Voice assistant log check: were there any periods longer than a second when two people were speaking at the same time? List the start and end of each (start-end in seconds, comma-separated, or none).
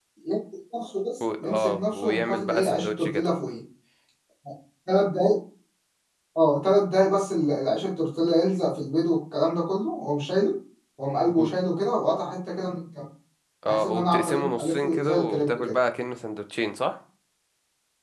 1.4-3.3, 13.7-15.8